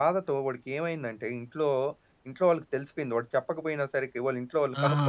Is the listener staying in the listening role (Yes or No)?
No